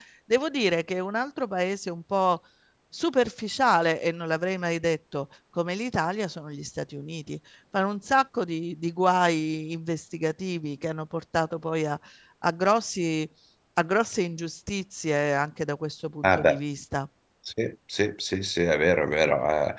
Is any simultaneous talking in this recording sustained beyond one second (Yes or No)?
No